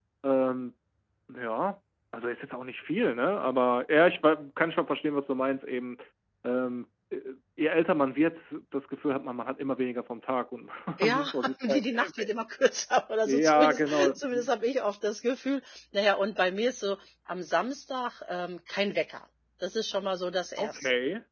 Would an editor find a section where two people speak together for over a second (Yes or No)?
Yes